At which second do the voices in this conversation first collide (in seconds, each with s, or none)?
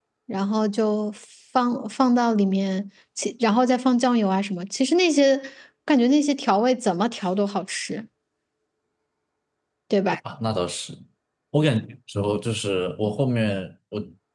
none